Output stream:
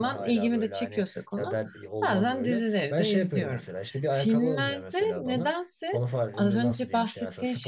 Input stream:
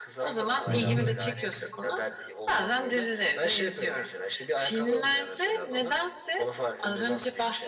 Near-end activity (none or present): present